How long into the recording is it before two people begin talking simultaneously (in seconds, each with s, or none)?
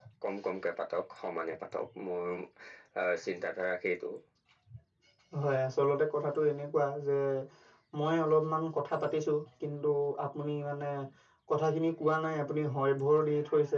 none